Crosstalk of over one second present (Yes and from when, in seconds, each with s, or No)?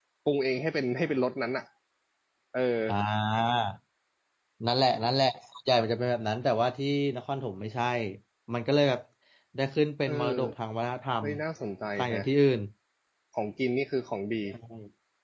No